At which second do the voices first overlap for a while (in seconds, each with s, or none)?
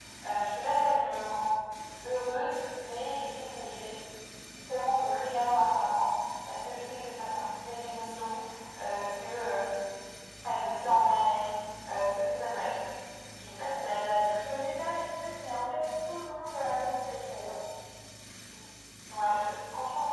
none